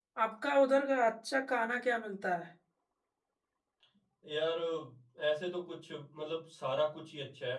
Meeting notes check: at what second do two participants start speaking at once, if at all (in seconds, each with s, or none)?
none